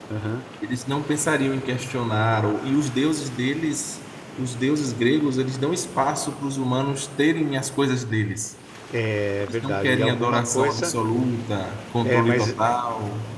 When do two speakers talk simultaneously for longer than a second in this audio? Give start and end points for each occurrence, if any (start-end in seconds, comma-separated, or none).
9.4-10.9